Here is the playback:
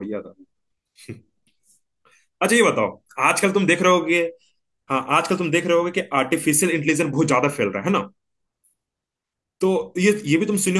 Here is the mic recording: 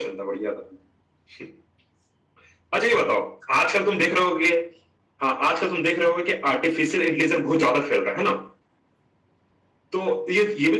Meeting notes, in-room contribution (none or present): none